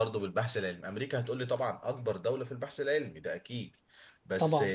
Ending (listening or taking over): listening